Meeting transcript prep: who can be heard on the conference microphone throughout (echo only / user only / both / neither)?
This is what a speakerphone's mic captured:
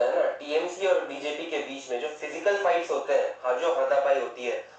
echo only